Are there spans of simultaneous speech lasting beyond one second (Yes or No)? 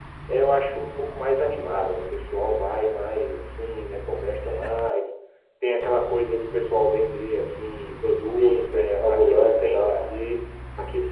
Yes